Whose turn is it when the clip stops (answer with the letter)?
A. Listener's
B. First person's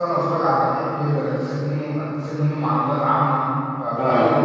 B